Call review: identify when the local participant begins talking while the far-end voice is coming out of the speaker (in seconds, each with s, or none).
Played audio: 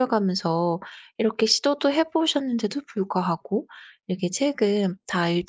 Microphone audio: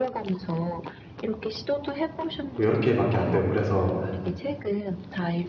2.6 s